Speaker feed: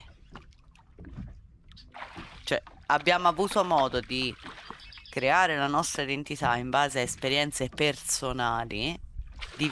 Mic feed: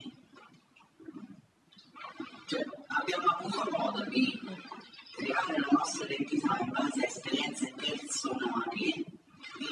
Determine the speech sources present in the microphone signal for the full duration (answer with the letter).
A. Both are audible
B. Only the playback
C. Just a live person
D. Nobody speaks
A